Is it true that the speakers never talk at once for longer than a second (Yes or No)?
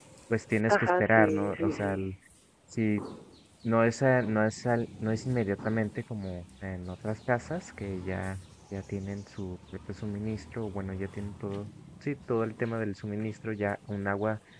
No